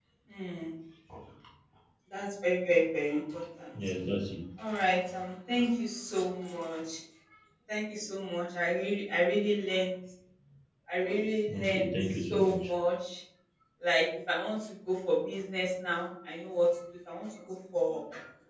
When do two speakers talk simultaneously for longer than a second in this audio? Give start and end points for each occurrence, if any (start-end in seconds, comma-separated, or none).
11.5-12.7